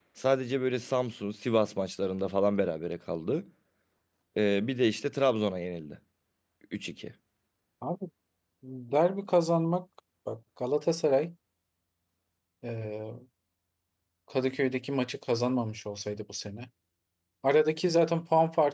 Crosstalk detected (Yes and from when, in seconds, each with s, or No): No